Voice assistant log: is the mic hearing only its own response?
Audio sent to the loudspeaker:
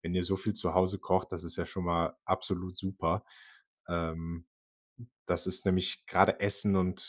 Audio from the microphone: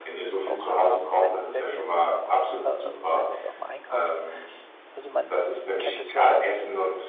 No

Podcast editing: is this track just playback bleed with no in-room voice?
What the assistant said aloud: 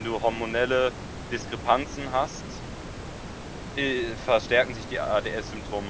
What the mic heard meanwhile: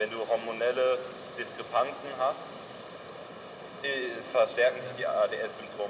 No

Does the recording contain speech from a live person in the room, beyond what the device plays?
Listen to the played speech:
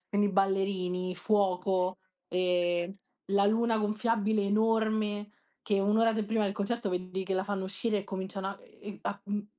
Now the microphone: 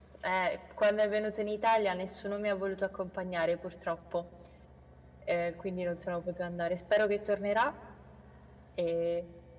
Yes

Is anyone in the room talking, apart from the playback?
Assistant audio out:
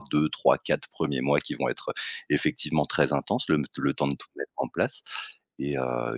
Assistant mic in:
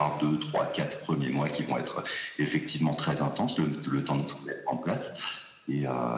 No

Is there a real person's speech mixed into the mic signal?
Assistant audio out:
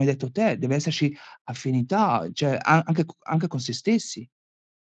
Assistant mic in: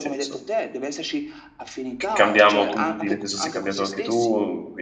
Yes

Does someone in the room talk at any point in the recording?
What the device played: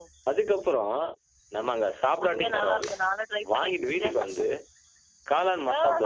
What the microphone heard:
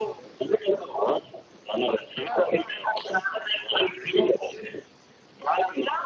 Yes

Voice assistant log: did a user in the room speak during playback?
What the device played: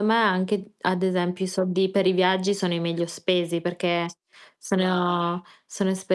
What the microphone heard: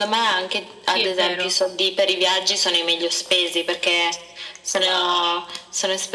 Yes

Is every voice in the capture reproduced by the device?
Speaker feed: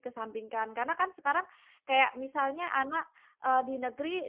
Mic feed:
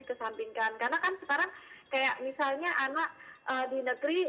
Yes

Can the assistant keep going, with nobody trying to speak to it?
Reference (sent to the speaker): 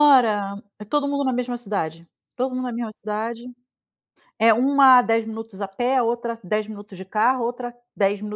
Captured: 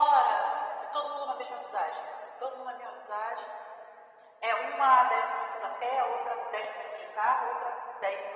Yes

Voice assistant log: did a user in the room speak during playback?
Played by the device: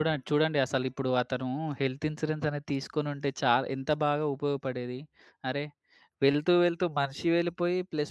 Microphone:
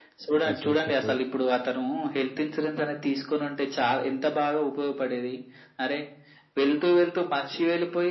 Yes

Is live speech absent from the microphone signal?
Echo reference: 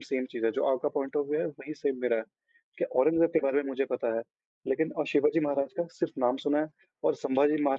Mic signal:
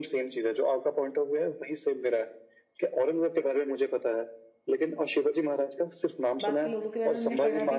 No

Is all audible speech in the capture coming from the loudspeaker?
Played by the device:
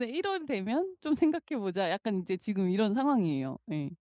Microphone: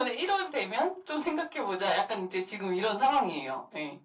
Yes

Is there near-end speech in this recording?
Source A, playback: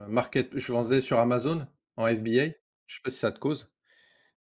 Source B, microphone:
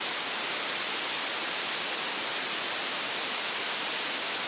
No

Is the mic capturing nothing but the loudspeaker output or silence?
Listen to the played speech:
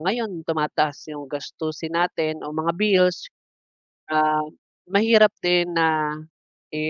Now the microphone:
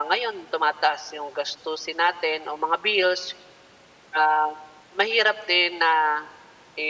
Yes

